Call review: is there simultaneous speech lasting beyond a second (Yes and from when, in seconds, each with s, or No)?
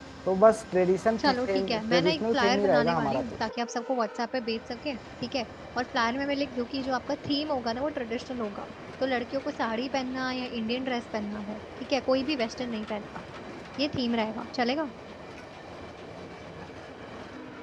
Yes, from 1.2 s